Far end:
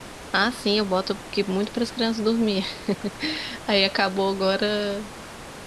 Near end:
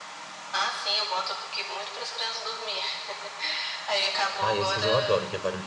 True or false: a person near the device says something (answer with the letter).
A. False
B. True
B